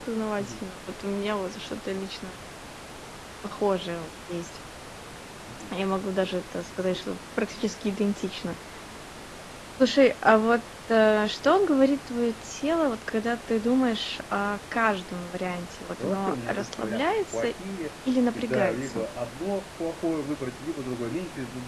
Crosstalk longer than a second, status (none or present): present